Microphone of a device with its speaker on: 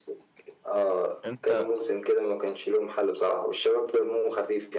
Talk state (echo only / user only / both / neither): both